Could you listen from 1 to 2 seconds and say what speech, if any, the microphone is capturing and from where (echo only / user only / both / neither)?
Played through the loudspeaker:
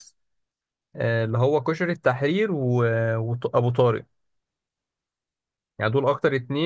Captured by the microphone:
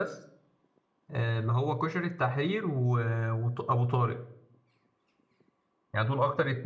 echo only